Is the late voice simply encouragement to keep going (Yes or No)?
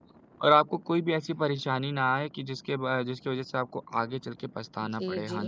No